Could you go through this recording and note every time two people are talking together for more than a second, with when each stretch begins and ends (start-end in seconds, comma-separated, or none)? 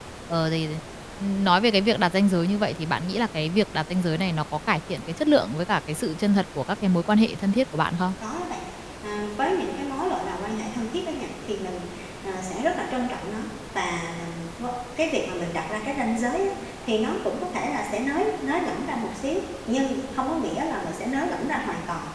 none